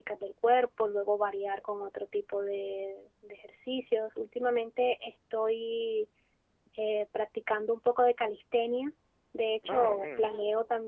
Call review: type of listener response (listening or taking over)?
listening